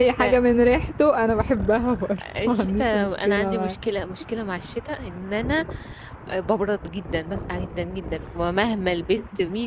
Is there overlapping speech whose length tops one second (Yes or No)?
Yes